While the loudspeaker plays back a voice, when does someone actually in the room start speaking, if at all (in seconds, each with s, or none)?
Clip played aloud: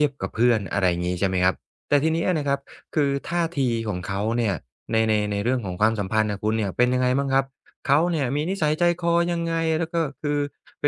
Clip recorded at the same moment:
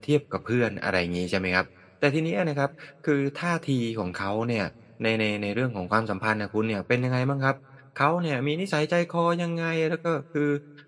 none